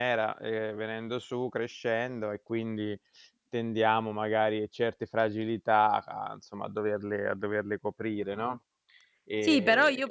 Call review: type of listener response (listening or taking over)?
taking over